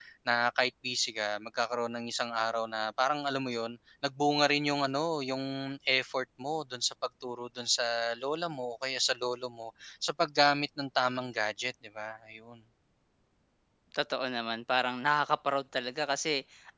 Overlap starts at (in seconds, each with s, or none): none